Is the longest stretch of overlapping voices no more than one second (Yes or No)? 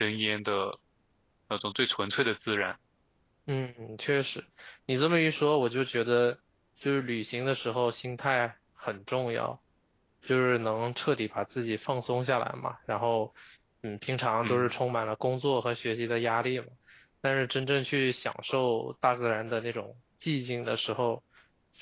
Yes